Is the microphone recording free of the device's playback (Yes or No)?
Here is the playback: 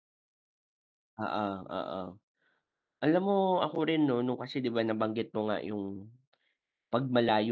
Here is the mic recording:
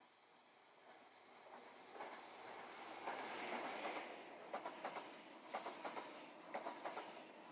Yes